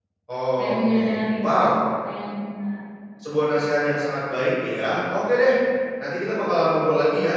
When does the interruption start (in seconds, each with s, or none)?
0.6 s